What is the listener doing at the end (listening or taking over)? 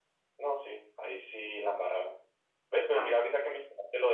listening